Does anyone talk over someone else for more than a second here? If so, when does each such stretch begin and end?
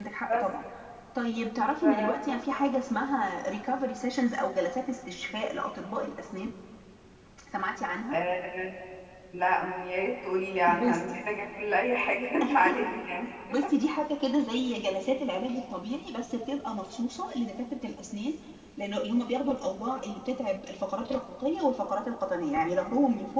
none

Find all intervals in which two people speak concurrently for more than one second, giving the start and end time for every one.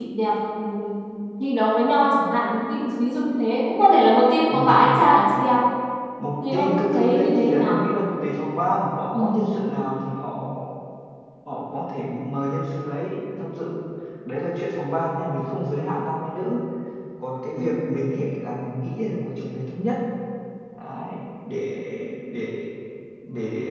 6.5-7.8

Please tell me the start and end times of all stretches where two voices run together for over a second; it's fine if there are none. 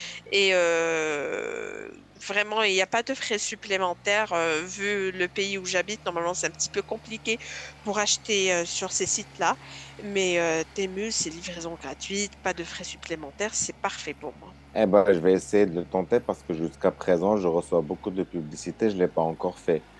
none

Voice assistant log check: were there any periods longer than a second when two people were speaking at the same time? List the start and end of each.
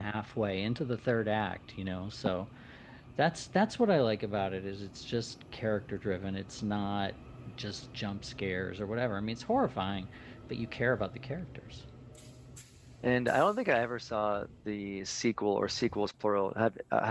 none

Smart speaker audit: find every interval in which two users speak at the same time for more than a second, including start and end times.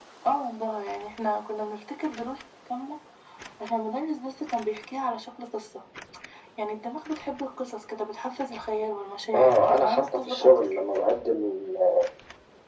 9.3-10.8

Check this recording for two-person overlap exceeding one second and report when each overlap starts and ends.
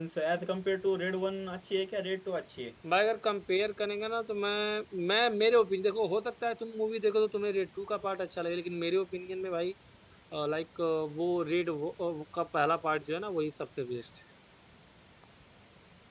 none

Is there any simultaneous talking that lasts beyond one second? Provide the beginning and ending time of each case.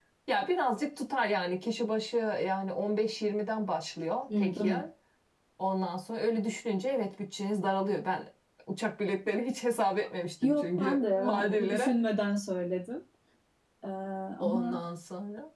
10.4-11.9

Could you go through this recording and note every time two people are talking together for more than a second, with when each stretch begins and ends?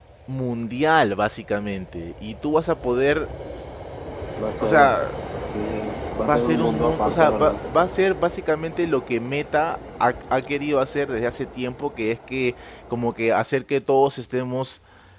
6.3-7.5

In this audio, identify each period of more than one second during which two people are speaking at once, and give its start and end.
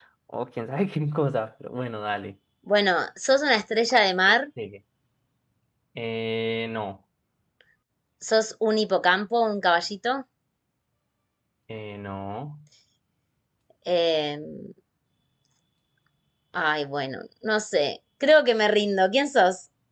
none

